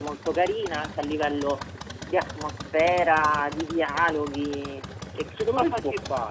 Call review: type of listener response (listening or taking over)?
taking over